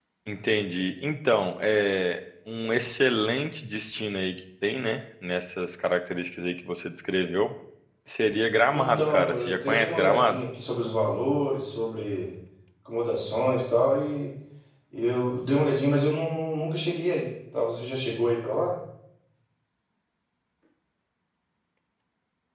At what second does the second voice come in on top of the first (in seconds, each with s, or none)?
8.7 s